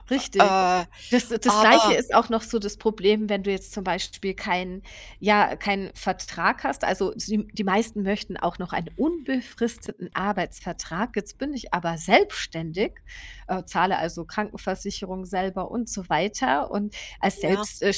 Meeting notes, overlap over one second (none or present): none